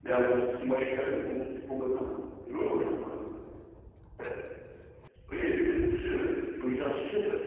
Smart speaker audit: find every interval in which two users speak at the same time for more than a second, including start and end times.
none

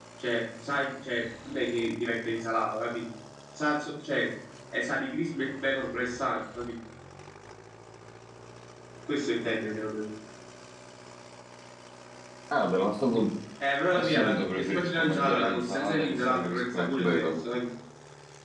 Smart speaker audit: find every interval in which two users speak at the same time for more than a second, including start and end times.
14.0-17.4

